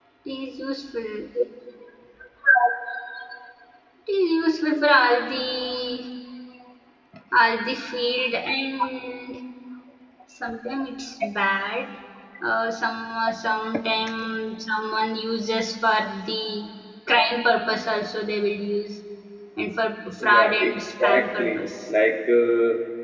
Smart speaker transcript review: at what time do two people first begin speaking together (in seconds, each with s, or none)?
20.3 s